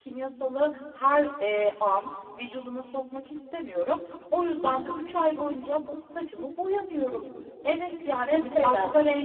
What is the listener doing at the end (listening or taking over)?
listening